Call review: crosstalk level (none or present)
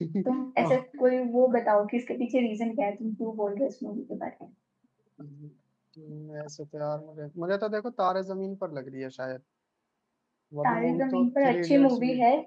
present